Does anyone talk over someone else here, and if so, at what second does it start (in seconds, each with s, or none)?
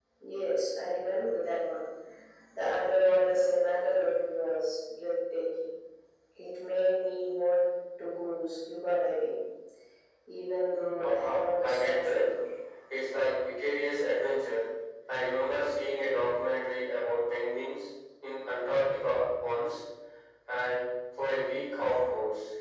11.0 s